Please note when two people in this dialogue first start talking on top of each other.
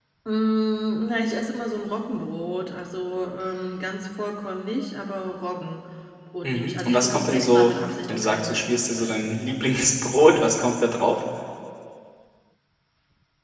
6 s

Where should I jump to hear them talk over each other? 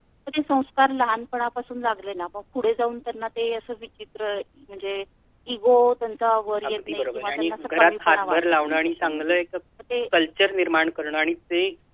7 s

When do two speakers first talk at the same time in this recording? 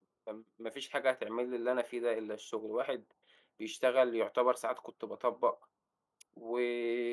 none

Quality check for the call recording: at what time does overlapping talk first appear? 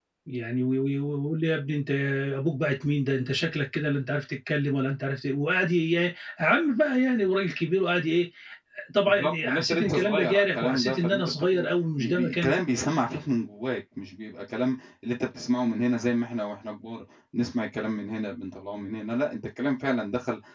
9 s

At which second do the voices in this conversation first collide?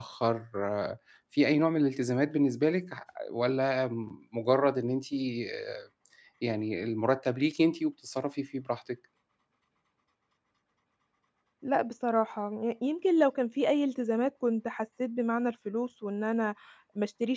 none

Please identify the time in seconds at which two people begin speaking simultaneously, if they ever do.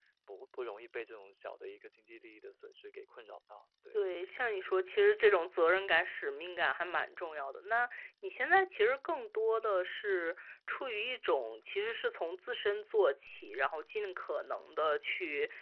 none

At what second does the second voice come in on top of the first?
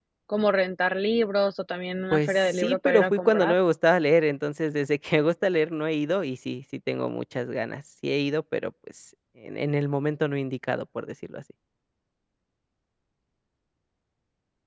2 s

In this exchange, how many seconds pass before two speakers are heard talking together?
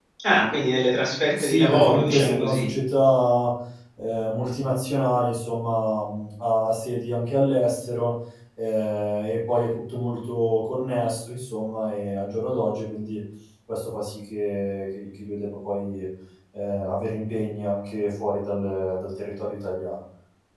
1 s

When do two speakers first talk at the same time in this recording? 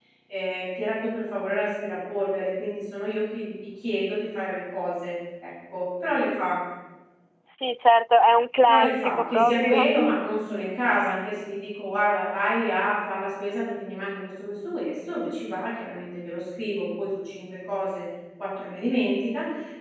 9 s

